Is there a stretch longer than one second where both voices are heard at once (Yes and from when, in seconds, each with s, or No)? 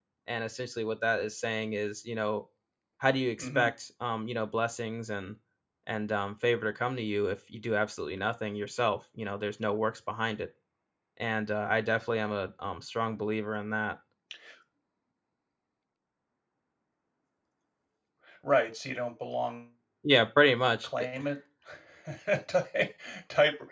No